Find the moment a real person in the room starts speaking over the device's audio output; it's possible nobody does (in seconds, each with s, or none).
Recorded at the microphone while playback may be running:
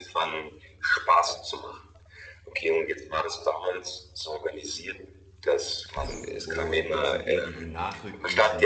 6.4 s